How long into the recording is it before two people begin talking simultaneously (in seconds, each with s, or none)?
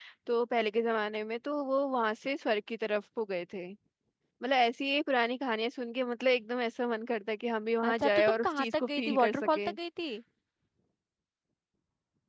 7.8 s